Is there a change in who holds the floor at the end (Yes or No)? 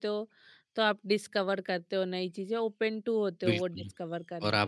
Yes